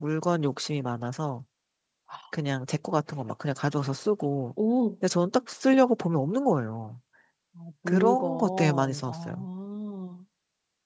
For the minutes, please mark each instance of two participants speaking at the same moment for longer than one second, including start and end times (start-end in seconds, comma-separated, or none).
7.9-9.5